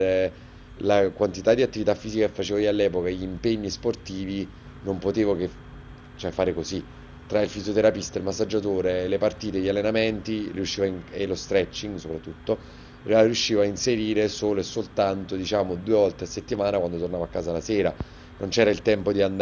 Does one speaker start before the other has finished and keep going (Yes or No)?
No